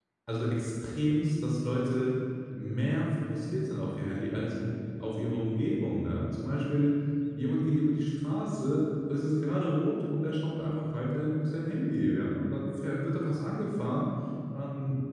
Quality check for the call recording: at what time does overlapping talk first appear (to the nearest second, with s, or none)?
none